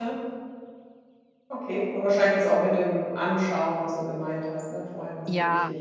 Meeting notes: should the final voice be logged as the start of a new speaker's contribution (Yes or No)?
Yes